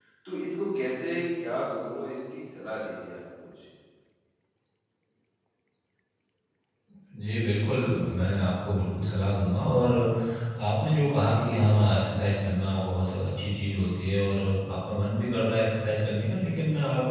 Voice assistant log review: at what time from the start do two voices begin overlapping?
none

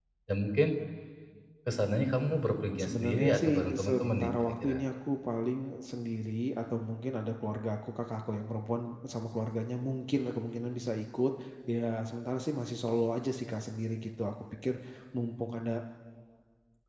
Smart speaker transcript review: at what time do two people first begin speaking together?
2.8 s

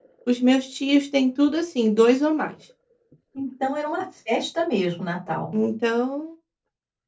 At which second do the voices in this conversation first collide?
none

